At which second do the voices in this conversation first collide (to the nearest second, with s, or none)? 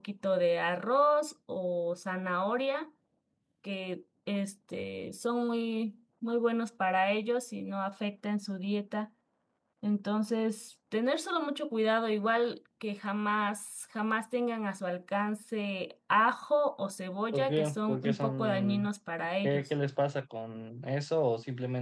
17 s